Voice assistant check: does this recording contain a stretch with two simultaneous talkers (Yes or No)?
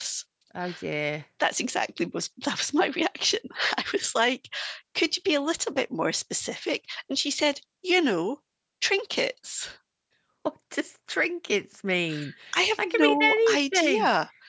Yes